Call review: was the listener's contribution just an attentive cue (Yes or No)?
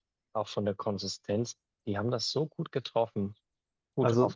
Yes